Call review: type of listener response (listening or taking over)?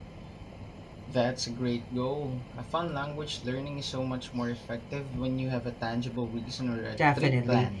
taking over